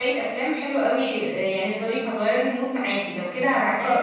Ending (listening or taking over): listening